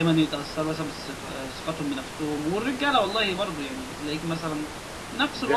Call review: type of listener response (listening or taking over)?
listening